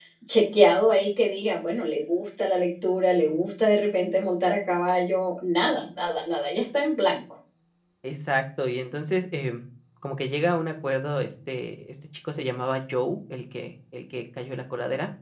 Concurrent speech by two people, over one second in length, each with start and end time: none

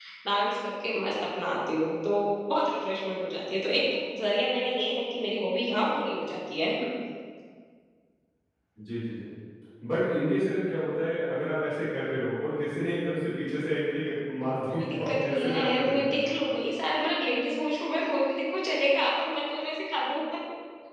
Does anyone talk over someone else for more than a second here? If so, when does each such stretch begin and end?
14.7-16.2

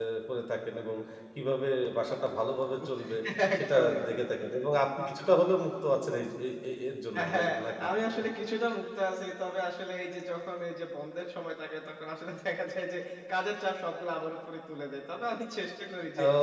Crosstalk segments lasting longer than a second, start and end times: none

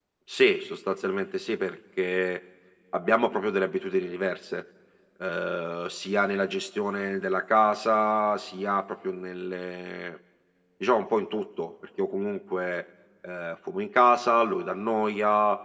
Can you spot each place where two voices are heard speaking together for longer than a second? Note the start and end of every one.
none

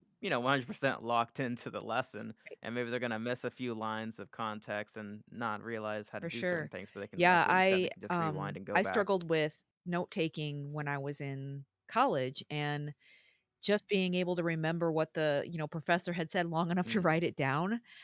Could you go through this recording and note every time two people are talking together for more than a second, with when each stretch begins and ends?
7.2-9.0

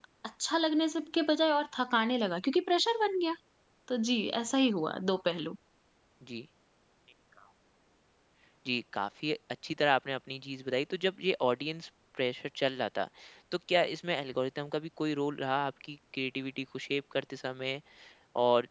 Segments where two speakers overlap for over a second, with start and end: none

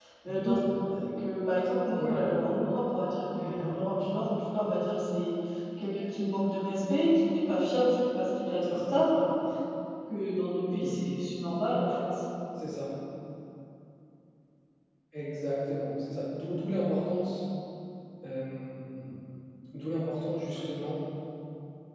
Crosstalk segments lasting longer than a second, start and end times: none

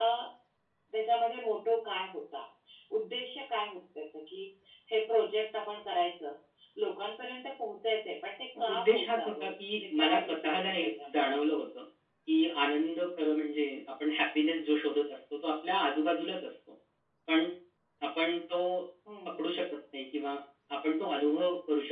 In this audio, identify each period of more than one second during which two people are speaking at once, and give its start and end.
8.7-11.1

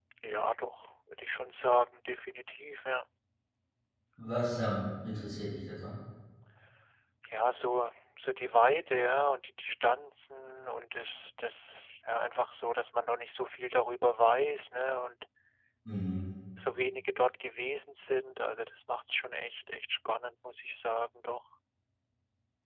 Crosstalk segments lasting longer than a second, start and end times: none

